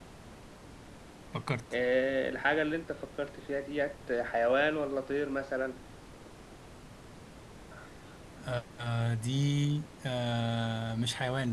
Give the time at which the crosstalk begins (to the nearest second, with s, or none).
none